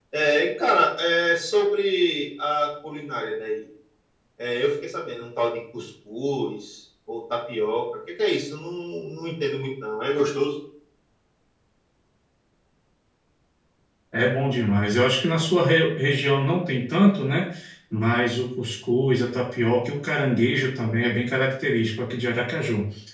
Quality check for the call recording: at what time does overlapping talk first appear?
none

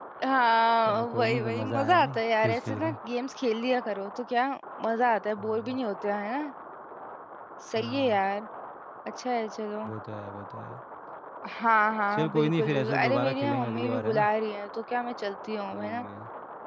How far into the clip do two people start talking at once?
1 s

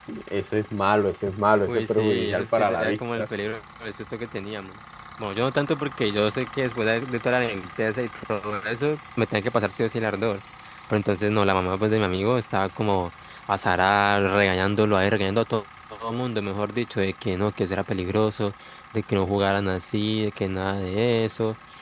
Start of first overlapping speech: 2 s

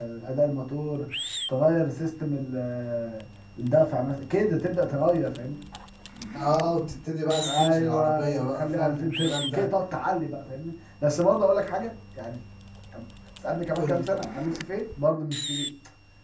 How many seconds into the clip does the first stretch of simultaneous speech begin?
7 s

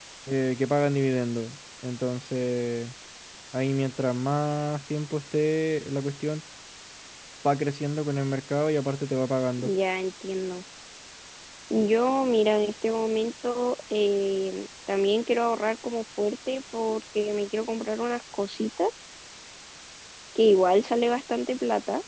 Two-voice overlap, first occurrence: none

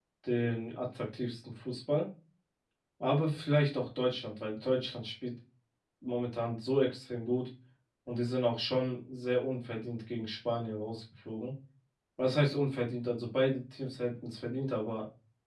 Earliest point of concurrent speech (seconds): none

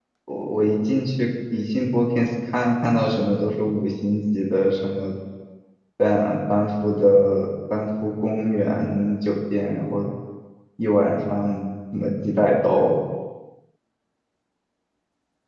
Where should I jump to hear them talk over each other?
none

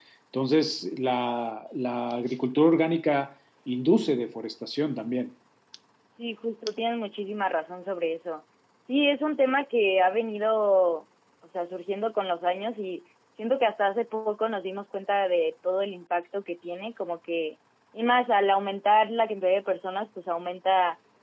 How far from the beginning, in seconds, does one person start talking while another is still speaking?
none

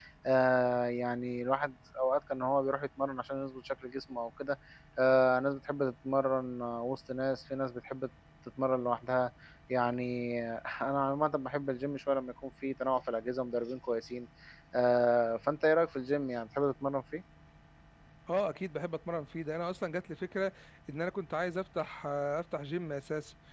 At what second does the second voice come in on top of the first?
none

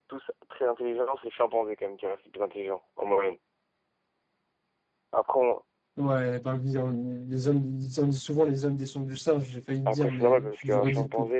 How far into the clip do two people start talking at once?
10 s

